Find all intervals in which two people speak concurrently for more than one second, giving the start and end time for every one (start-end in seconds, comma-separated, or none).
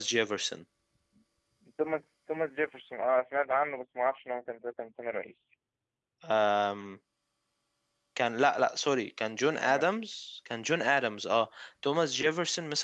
none